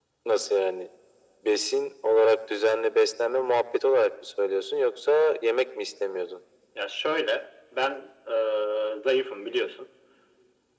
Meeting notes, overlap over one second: none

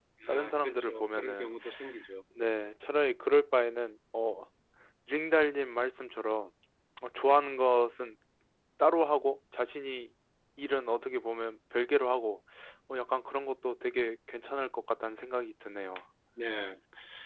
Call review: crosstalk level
present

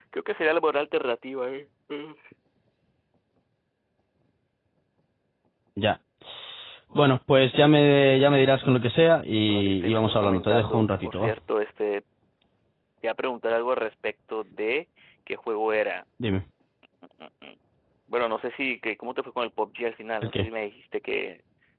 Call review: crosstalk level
present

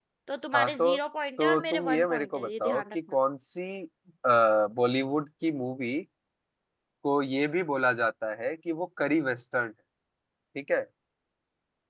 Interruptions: present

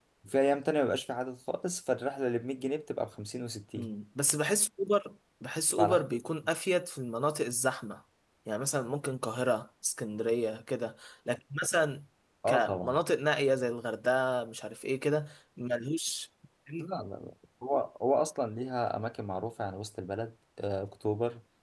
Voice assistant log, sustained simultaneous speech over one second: none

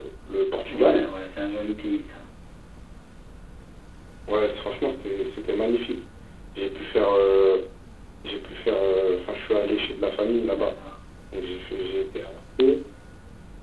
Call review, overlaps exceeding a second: none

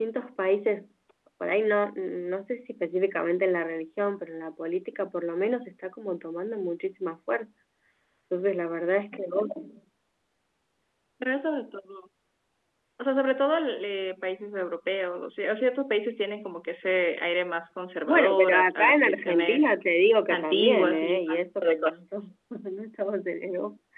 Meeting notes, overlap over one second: present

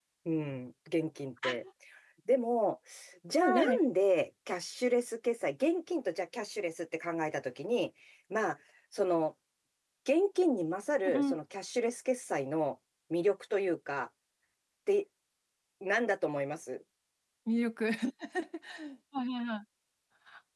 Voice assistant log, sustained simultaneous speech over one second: none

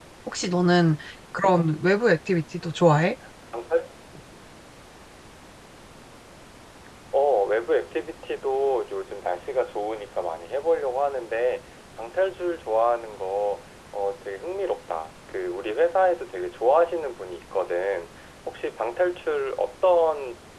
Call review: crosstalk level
none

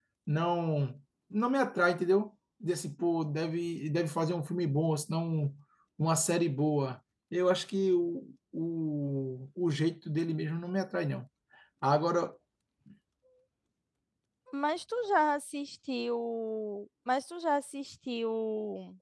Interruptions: none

